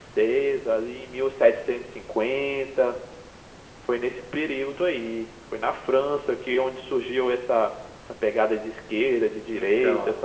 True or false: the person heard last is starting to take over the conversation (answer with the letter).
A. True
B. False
A